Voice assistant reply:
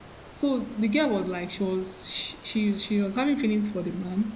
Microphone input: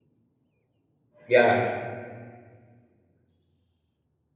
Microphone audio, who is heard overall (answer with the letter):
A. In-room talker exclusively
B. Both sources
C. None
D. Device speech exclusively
A